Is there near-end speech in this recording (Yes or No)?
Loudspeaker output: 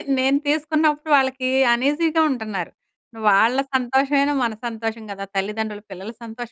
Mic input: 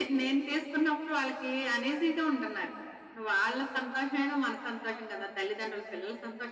No